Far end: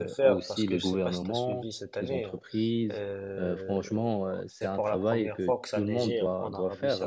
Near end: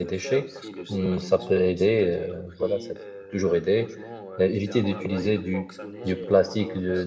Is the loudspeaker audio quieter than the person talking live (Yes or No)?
Yes